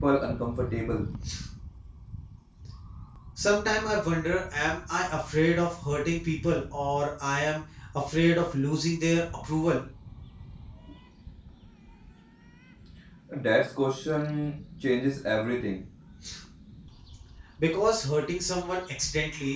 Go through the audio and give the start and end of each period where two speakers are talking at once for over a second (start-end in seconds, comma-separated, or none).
none